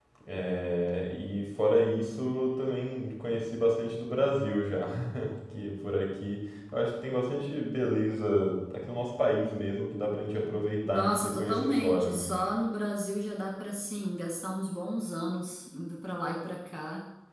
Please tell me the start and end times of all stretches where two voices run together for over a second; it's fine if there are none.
10.8-12.3

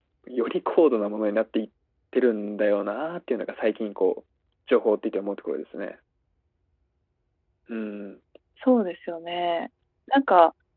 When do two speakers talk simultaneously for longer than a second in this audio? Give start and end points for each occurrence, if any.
none

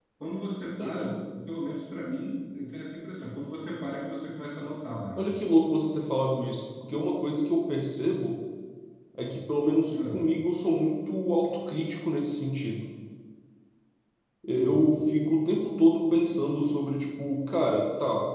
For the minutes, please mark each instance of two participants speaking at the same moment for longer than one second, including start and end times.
none

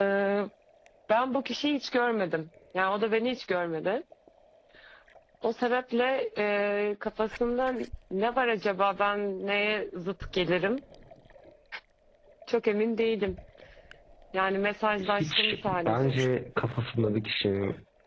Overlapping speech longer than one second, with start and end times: 15.0-16.2

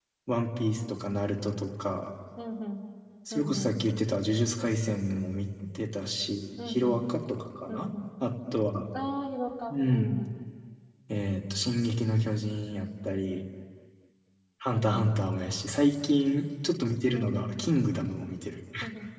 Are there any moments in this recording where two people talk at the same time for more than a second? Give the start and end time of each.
none

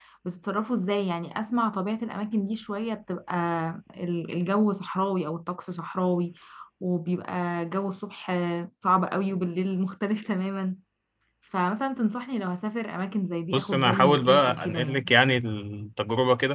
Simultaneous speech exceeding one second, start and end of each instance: 13.5-15.1

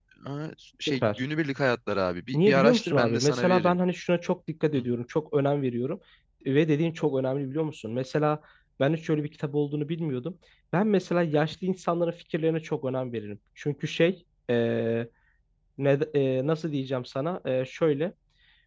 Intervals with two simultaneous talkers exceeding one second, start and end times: 2.3-3.8

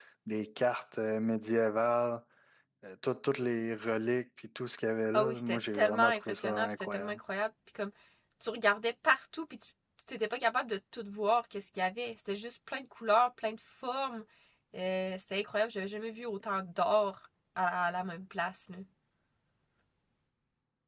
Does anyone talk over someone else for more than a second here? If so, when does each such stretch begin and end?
5.1-7.2

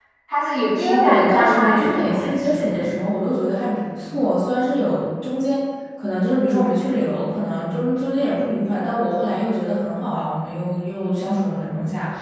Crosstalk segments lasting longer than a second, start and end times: 0.7-3.0

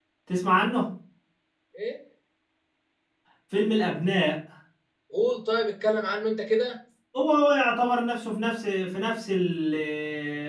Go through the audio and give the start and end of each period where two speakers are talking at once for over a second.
none

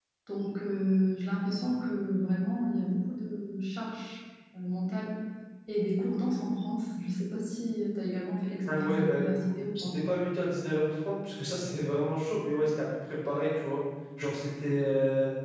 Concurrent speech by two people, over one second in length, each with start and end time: 8.7-9.9

